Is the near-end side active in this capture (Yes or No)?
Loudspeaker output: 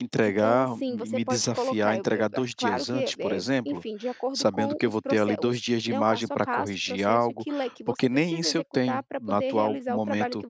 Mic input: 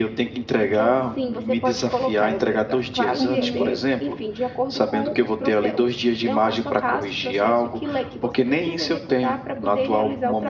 Yes